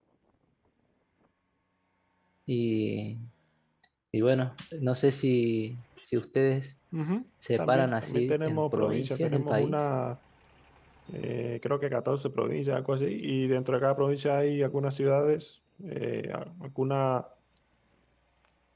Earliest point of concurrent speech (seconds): 7.6 s

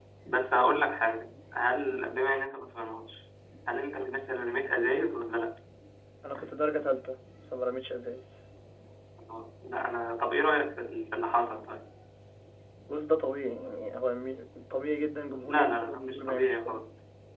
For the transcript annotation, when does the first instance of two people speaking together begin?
15.4 s

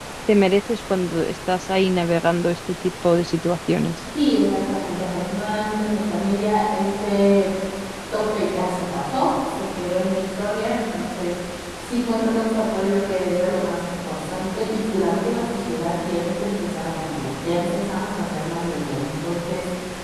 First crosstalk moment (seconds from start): none

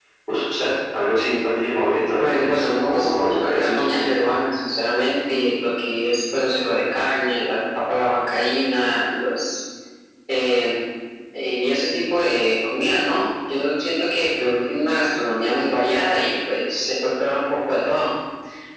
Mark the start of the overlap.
2.2 s

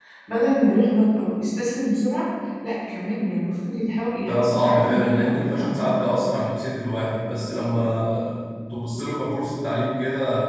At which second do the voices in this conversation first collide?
4.2 s

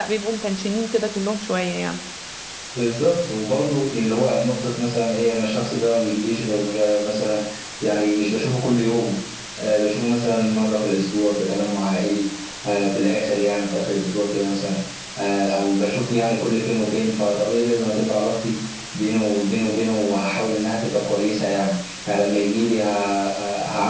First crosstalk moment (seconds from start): none

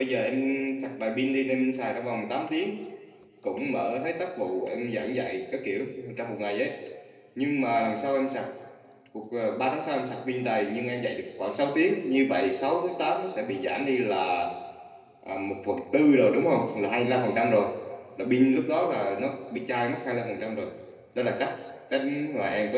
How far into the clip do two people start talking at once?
none

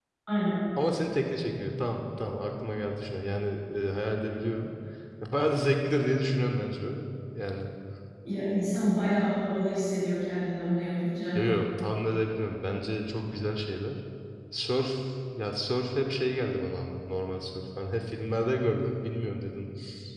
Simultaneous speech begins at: none

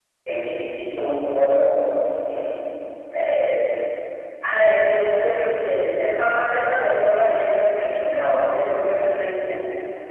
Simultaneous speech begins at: none

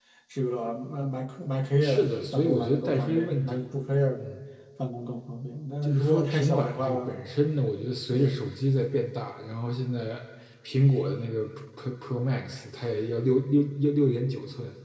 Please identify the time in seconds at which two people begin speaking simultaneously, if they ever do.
1.8 s

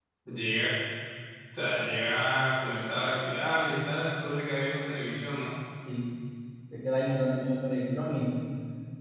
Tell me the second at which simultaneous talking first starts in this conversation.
none

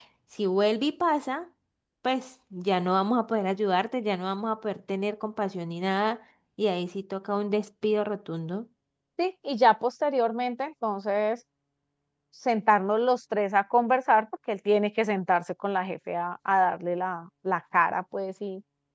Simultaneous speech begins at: none

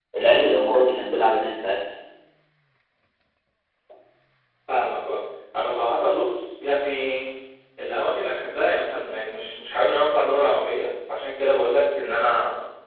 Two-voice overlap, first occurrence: none

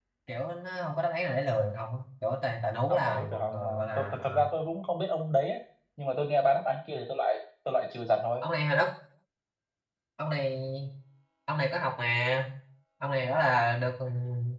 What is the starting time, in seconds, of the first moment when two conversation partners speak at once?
2.9 s

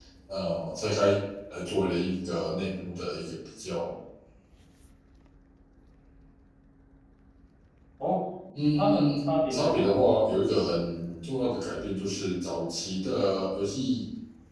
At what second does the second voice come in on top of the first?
8.7 s

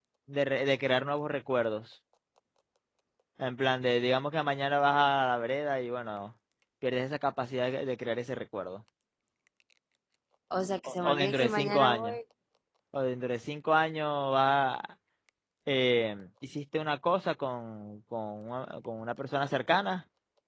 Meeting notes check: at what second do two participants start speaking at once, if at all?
10.8 s

